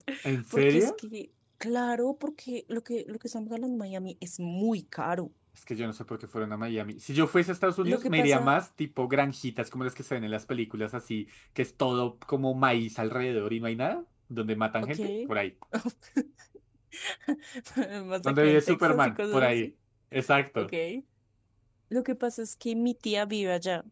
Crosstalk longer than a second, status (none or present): present